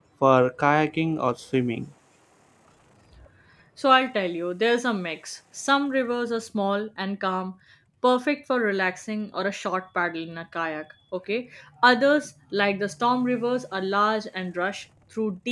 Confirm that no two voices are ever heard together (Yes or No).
Yes